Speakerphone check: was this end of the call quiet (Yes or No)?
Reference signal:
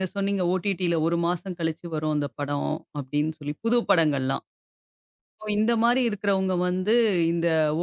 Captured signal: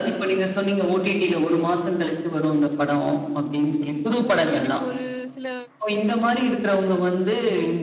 No